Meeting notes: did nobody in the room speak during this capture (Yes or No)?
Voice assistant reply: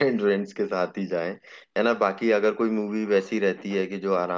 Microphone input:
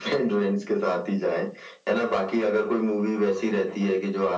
Yes